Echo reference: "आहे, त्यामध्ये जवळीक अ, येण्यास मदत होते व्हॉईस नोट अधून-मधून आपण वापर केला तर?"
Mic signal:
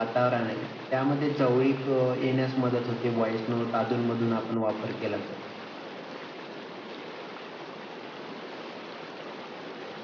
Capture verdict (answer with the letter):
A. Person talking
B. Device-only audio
B